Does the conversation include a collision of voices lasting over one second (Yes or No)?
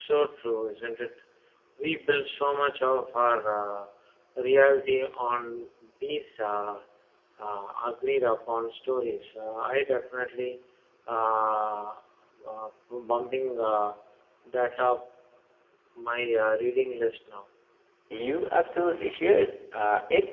No